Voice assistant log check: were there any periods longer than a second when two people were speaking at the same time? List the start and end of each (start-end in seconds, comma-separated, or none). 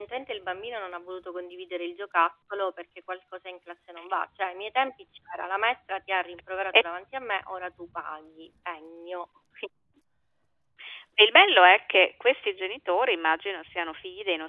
none